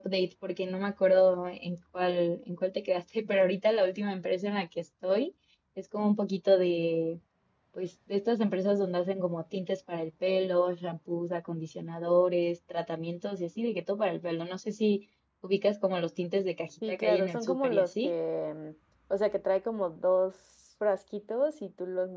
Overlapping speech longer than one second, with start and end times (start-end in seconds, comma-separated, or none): 16.9-18.1